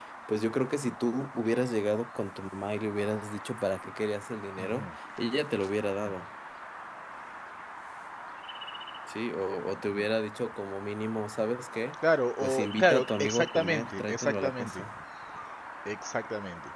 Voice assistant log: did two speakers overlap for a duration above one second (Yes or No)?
Yes